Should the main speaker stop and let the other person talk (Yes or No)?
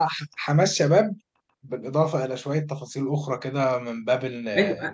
Yes